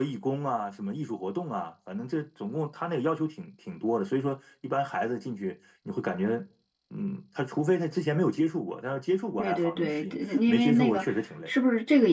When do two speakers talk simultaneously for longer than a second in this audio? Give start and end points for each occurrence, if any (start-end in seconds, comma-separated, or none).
9.4-11.1